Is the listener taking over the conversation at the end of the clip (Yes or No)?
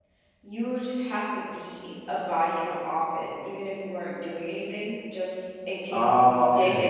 No